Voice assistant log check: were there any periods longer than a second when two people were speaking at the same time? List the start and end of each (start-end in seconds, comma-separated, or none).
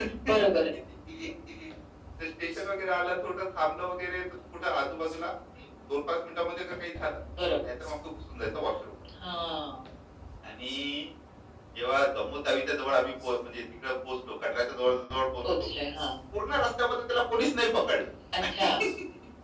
none